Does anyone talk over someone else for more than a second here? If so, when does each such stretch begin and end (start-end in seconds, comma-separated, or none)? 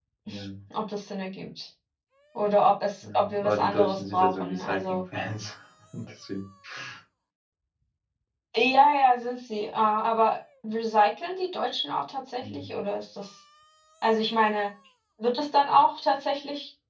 3.0-5.0